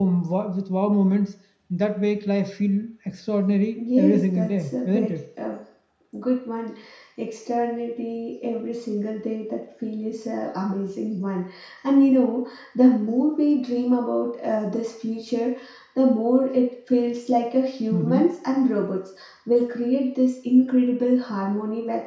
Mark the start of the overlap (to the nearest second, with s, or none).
4 s